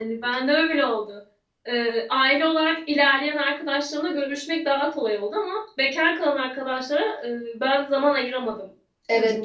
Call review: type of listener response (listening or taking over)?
taking over